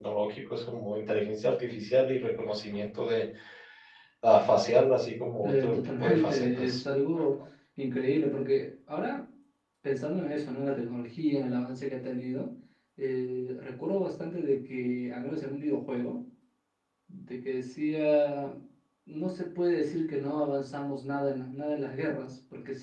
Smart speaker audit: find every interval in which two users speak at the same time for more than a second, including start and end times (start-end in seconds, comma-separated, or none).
5.4-6.8